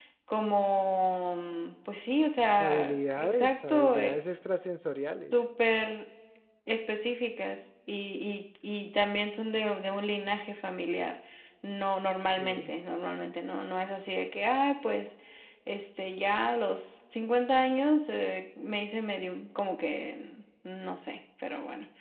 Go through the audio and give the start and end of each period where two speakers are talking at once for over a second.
2.6-4.2

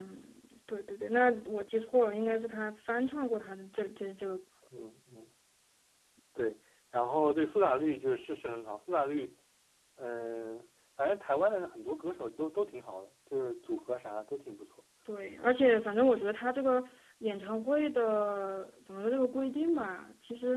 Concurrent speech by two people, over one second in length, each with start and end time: none

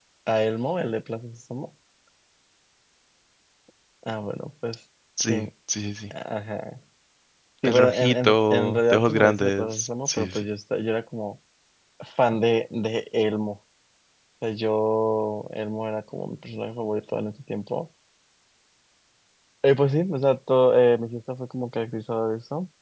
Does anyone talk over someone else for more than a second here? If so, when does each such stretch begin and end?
7.6-10.4

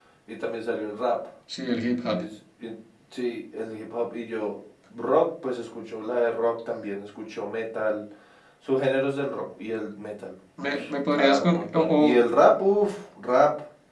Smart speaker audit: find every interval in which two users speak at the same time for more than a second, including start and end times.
10.7-12.0

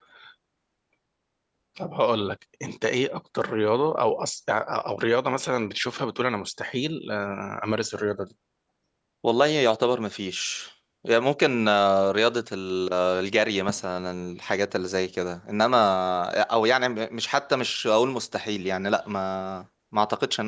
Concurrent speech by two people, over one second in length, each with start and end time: none

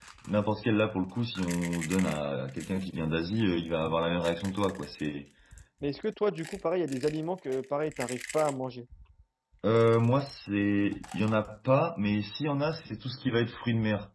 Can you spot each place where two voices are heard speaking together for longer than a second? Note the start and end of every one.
none

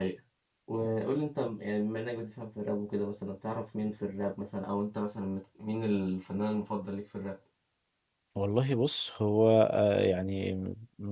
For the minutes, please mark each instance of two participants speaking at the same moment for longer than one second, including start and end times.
none

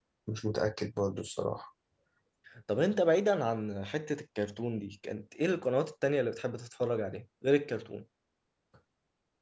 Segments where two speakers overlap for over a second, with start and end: none

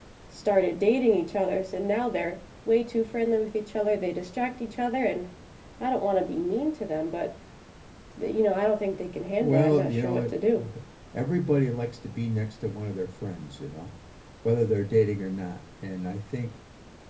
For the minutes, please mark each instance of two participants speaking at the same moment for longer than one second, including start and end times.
9.4-10.6

